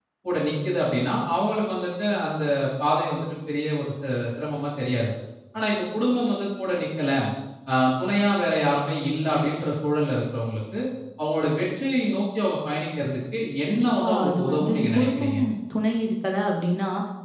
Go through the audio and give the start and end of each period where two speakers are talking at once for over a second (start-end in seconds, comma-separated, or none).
13.7-15.4